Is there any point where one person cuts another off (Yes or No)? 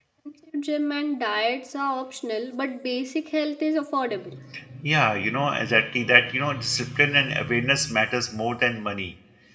No